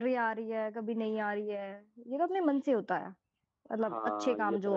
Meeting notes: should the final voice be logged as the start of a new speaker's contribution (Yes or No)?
Yes